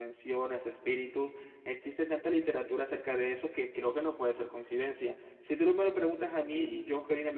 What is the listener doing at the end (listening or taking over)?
taking over